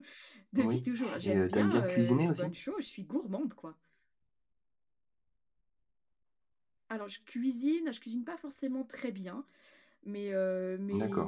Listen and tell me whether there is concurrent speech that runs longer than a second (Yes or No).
Yes